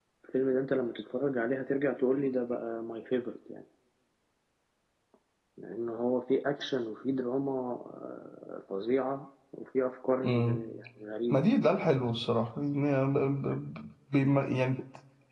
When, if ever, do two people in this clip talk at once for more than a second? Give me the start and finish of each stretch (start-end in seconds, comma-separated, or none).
none